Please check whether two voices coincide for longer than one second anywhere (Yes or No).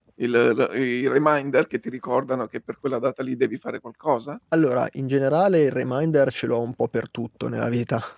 No